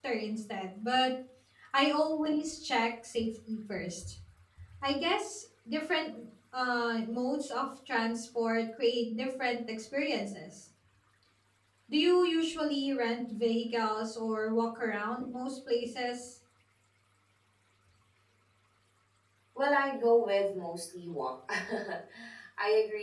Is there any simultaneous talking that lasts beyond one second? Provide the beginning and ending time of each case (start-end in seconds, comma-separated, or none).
none